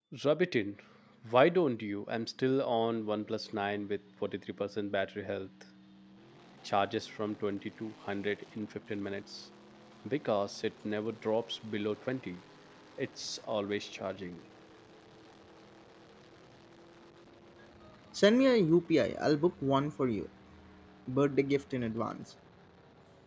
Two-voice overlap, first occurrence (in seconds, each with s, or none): none